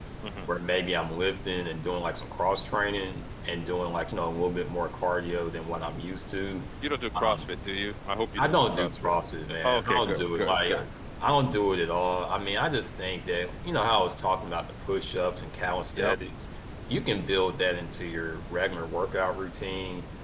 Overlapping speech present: Yes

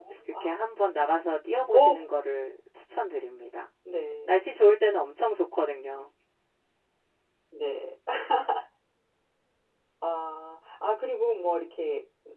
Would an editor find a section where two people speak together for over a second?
No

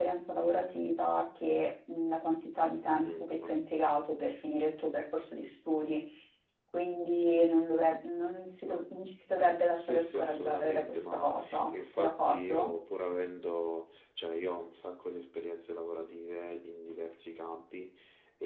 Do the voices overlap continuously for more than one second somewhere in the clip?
Yes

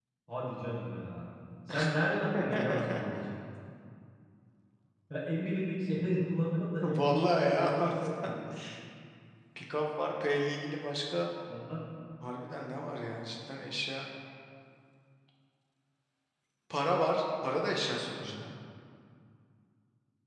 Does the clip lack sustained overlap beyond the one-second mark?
No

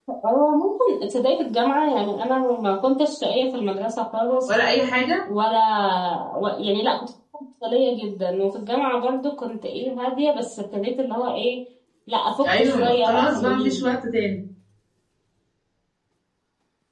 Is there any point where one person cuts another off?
Yes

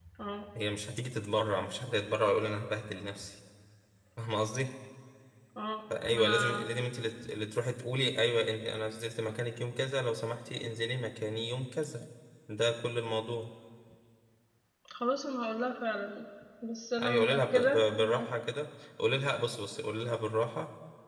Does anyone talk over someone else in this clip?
Yes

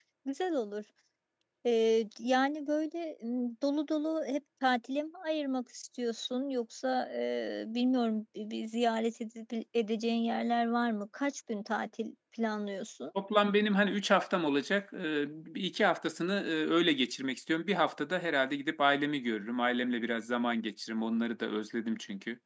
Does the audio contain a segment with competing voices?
No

